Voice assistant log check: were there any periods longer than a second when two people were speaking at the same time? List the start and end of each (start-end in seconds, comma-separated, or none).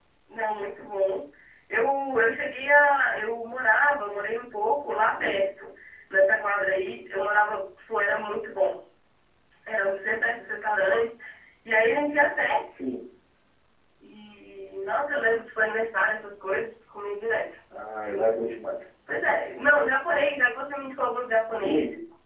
none